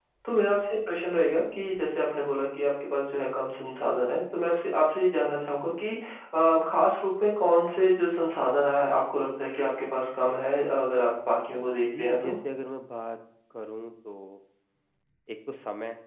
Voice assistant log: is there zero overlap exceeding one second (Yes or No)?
Yes